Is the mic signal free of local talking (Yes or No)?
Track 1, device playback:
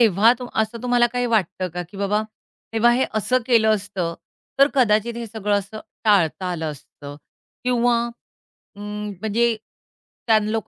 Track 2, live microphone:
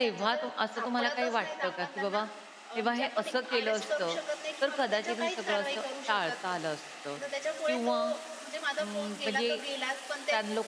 No